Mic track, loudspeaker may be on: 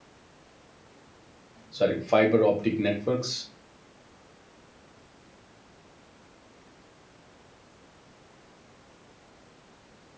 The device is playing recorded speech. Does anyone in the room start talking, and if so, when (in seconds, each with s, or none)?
1.7 s